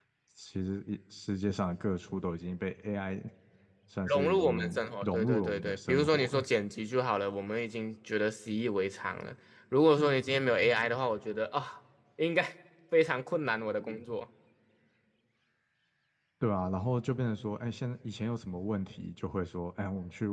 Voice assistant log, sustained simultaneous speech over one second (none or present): present